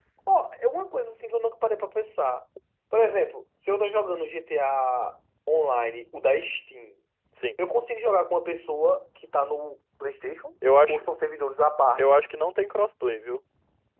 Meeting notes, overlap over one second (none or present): none